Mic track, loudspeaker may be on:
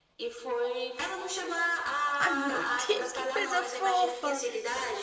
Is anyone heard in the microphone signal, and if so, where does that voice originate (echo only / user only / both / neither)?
both